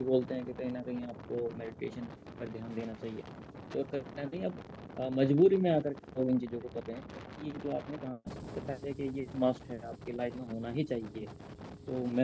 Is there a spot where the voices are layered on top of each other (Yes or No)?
No